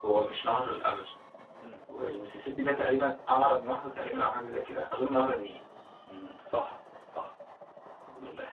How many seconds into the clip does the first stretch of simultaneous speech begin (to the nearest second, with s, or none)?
none